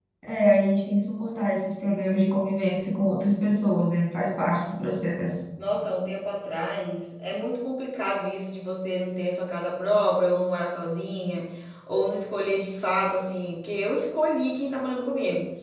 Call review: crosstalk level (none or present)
none